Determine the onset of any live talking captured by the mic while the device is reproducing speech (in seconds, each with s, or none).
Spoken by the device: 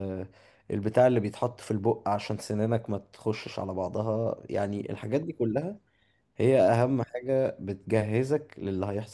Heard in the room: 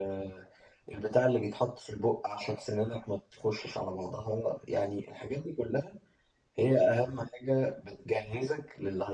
none